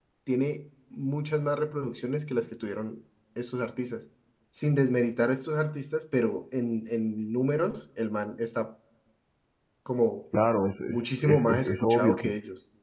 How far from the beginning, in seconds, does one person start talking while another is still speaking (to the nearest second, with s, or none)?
11 s